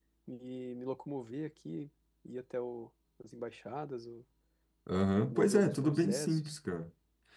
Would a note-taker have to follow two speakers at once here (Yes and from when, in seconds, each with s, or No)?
Yes, from 5.3 s